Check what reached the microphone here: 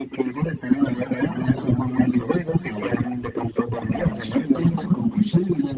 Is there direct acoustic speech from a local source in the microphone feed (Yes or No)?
No